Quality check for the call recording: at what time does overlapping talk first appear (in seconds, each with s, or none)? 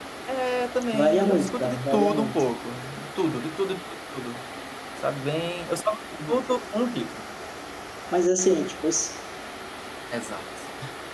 0.9 s